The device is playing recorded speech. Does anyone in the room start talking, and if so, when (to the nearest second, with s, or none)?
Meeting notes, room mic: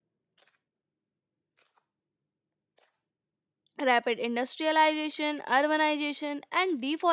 4 s